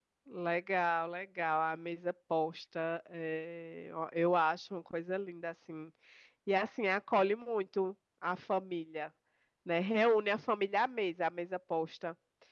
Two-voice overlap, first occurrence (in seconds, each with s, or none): none